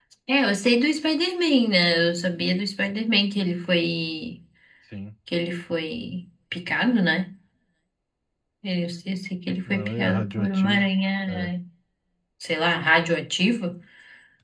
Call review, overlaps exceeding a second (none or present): present